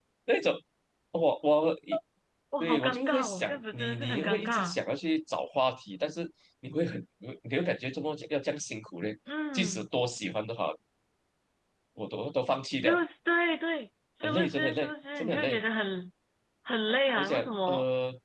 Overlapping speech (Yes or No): Yes